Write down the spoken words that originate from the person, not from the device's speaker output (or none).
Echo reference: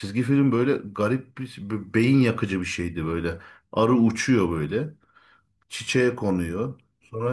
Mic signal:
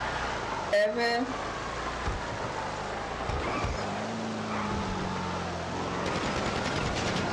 Evet.